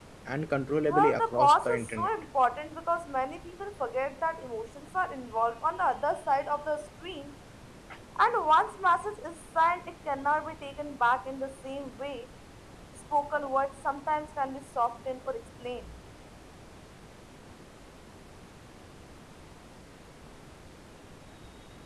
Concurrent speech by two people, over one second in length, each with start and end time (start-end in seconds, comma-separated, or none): 0.9-2.1